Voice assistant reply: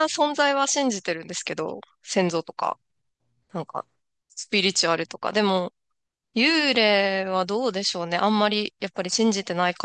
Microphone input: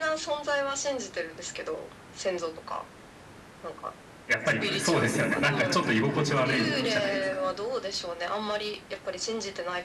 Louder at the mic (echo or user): user